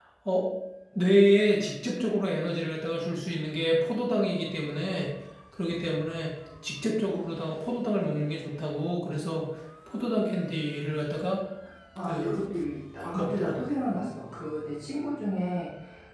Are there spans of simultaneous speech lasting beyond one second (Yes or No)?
No